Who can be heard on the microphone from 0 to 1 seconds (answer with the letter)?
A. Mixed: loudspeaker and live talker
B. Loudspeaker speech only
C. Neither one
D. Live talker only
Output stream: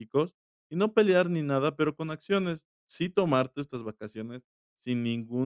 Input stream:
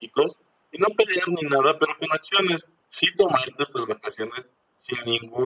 B